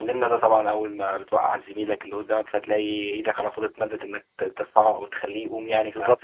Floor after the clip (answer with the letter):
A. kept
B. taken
B